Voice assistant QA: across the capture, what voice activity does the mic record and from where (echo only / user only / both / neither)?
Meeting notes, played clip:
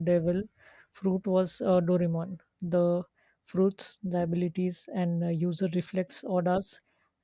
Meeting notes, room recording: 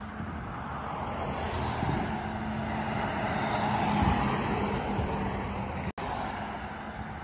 neither